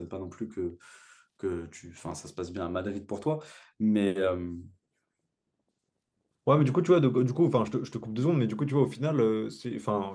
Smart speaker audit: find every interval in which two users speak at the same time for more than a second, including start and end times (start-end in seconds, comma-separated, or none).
none